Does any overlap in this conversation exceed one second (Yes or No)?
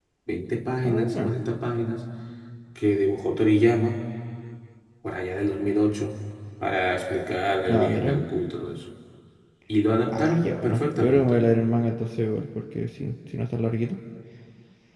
Yes